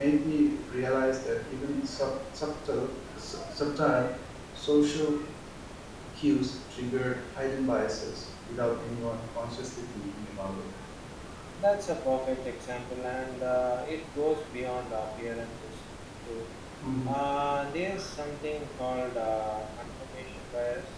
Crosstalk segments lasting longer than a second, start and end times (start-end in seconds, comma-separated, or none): none